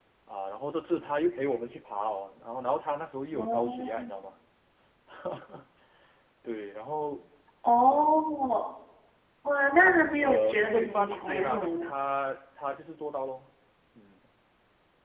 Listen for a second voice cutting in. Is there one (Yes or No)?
Yes